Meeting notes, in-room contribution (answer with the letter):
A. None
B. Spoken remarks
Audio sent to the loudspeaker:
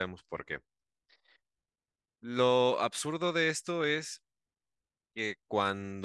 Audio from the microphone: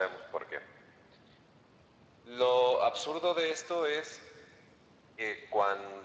A